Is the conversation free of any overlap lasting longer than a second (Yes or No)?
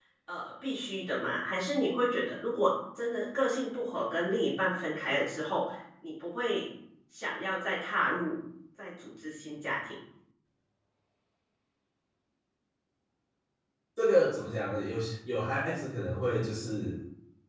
Yes